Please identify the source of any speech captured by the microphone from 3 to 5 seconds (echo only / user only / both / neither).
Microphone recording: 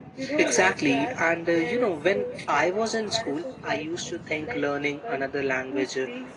echo only